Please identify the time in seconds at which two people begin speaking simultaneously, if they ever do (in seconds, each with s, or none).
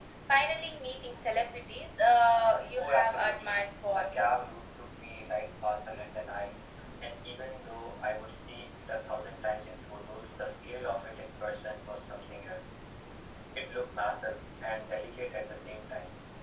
2.6 s